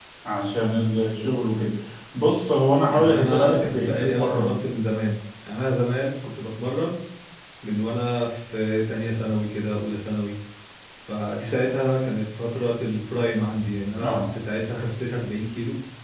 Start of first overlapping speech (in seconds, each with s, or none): 2.9 s